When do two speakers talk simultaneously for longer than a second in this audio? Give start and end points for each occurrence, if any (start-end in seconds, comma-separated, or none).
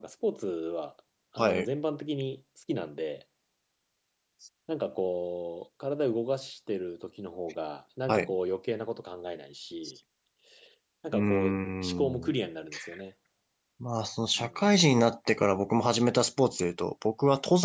11.1-12.3